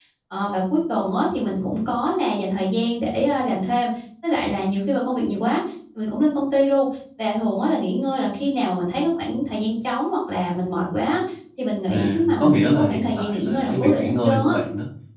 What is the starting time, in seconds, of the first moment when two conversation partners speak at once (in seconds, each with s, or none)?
11.9 s